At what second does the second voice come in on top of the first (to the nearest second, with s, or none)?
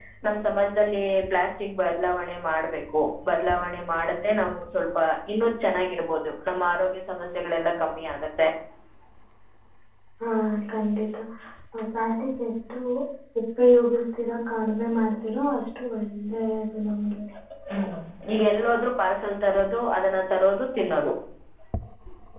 none